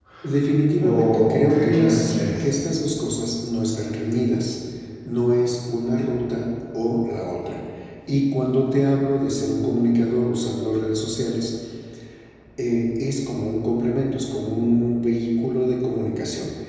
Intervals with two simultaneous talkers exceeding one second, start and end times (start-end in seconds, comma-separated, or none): 0.8-2.4